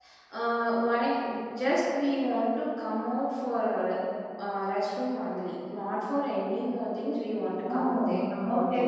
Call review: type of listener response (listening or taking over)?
taking over